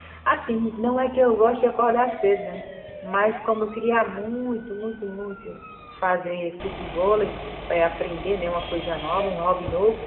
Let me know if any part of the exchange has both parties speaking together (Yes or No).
No